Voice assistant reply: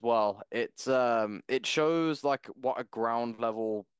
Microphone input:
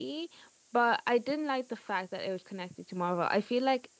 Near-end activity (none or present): present